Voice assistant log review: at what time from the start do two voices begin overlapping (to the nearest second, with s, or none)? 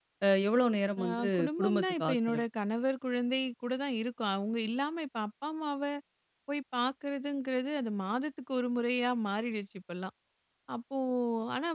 1 s